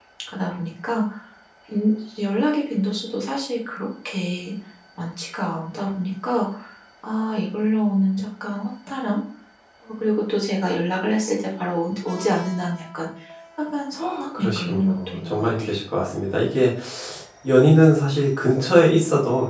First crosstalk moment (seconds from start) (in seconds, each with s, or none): 14.0 s